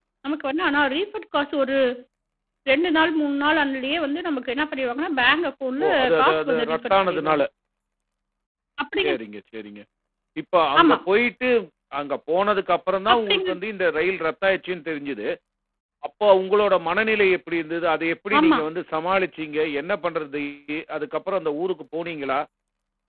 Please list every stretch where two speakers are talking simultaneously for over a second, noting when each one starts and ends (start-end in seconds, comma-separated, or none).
5.8-7.4